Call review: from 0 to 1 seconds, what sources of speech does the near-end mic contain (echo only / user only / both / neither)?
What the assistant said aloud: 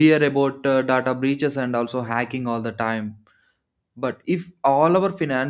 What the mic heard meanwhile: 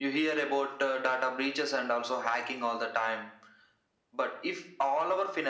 echo only